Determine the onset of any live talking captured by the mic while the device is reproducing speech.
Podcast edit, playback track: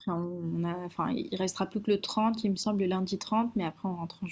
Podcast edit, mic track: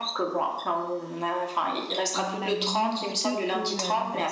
2.2 s

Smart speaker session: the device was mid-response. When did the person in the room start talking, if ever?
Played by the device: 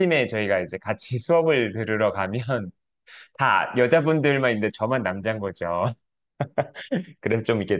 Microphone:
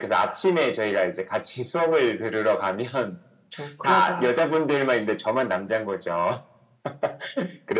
3.5 s

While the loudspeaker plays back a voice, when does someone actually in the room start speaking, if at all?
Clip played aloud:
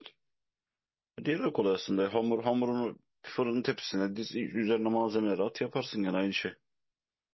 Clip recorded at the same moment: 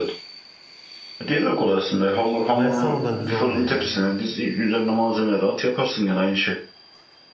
2.5 s

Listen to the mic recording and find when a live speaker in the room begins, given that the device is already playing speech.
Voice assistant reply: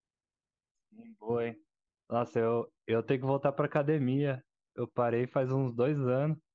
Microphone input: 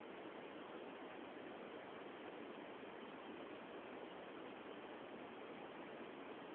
none

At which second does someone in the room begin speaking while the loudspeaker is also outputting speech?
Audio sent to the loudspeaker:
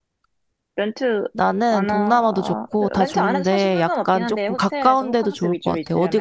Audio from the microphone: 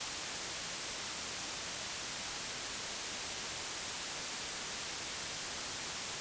none

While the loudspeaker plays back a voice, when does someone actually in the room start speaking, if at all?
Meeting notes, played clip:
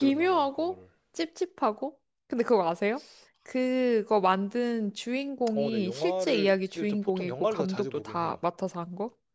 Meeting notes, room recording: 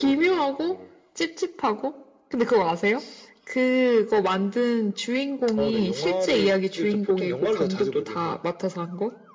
none

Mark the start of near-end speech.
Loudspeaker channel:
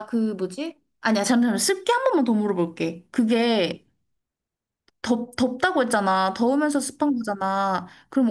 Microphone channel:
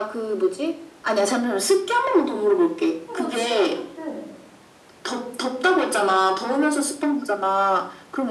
3.0 s

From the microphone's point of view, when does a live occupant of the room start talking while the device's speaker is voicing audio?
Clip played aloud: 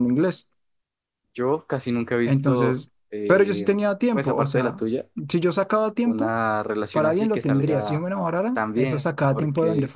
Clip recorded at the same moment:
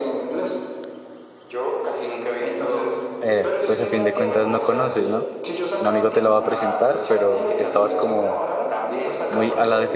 3.2 s

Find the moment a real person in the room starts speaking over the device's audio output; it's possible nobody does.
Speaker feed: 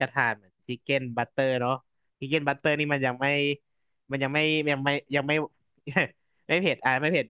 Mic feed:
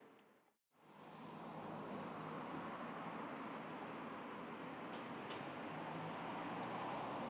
none

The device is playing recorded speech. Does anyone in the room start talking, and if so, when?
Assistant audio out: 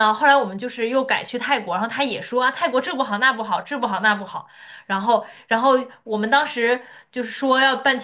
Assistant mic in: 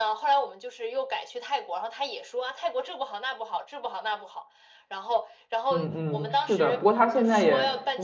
5.7 s

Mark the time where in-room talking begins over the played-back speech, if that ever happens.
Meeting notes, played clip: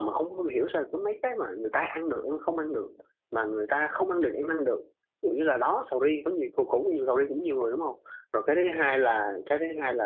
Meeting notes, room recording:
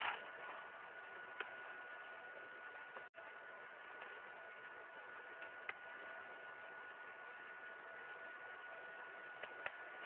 none

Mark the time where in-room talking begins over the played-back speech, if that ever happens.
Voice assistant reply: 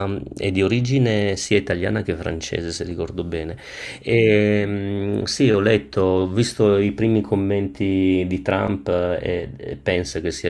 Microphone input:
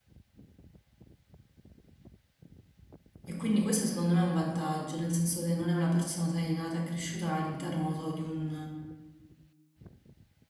3.3 s

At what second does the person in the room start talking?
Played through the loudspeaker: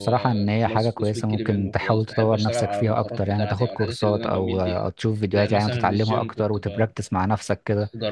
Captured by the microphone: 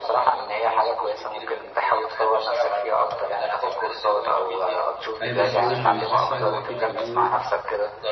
5.2 s

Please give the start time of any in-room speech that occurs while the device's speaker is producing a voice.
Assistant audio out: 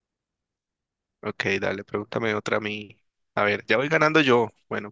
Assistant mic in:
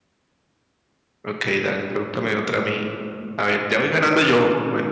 none

